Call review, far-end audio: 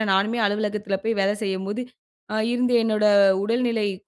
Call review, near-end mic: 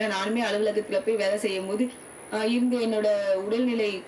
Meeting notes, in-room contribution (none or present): none